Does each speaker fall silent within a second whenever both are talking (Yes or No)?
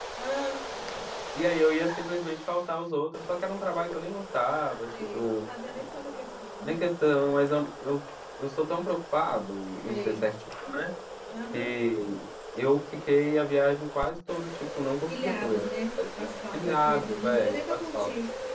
No